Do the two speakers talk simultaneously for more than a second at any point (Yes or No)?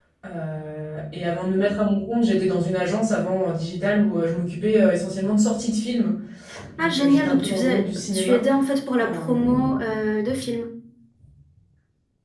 Yes